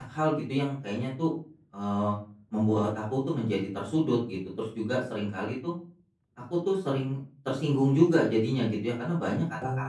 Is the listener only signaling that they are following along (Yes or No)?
Yes